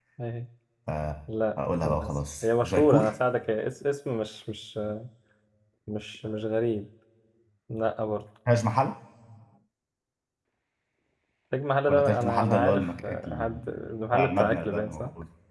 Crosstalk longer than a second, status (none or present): present